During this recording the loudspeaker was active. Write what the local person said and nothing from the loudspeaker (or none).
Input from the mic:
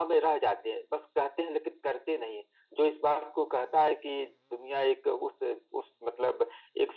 none